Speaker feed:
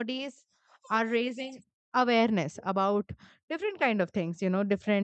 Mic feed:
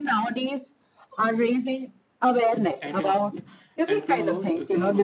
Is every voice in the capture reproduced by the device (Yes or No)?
No